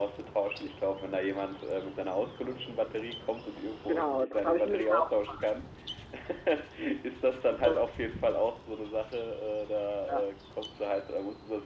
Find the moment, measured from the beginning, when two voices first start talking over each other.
3.9 s

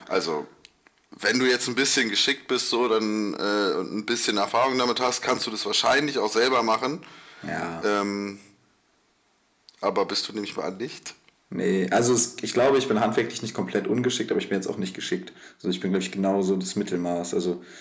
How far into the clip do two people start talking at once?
none

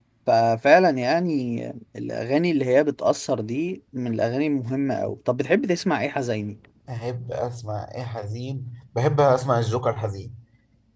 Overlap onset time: none

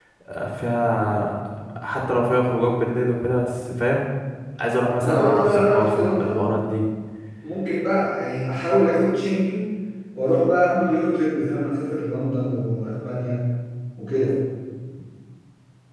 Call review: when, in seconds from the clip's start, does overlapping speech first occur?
5.0 s

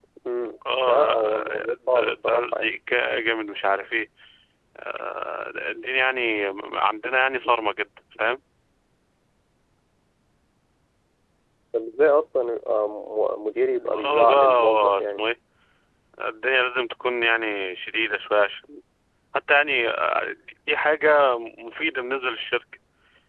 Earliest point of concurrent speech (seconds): 0.9 s

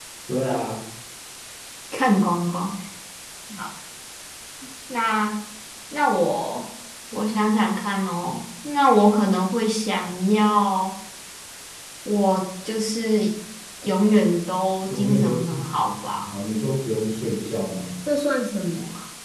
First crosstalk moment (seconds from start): 14.8 s

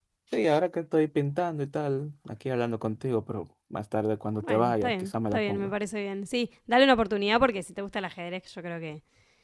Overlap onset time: 4.4 s

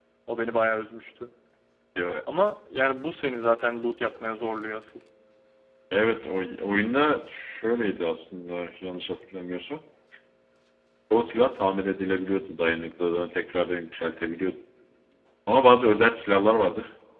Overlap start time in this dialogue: none

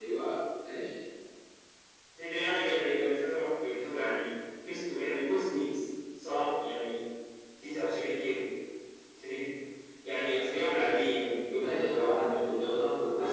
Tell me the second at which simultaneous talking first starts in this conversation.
11.6 s

